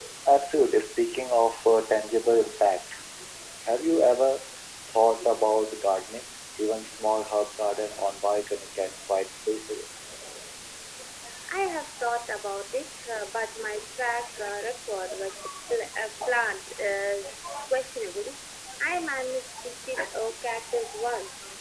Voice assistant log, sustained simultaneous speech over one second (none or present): none